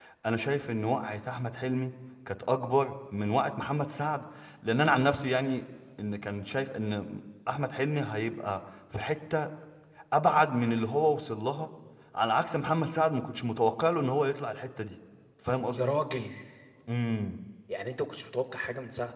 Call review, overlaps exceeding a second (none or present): none